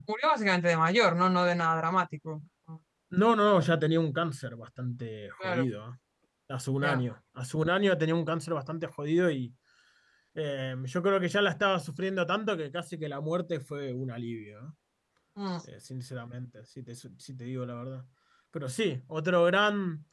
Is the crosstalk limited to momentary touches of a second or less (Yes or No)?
Yes